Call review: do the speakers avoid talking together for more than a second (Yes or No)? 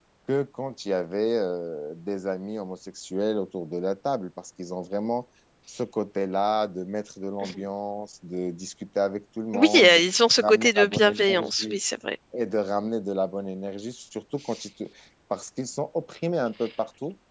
No